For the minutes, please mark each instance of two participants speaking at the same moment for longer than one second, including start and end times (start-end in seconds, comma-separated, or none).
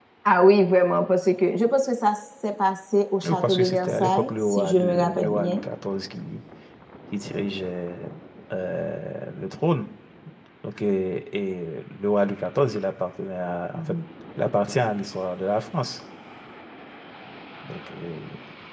3.2-5.6